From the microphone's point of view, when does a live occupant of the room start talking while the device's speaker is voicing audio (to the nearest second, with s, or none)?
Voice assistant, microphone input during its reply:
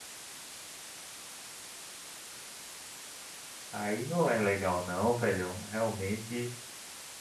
4 s